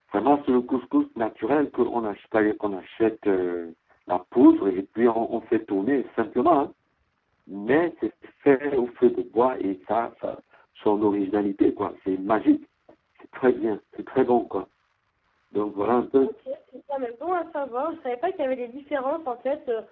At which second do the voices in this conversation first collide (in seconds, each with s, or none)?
none